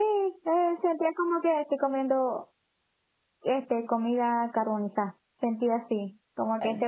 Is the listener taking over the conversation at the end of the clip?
No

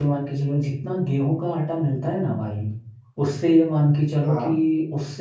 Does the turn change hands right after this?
No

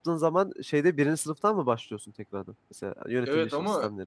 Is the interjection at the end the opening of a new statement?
Yes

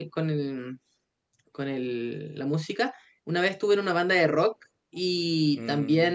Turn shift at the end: No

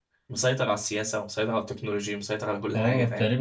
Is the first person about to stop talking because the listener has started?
Yes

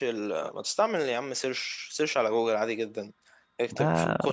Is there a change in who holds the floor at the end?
No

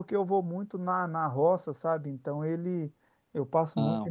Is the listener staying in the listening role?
Yes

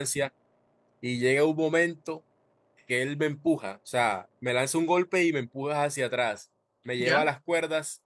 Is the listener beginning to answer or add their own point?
No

